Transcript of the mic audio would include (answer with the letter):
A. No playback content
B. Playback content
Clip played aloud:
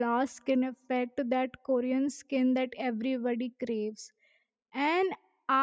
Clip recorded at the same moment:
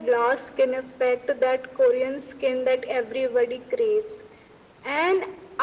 B